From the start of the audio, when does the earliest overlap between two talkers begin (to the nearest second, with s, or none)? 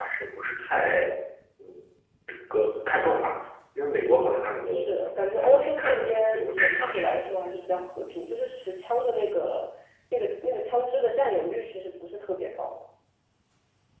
5 s